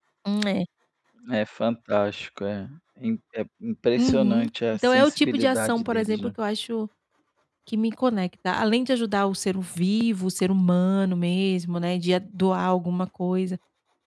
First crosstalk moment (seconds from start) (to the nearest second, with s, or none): 4 s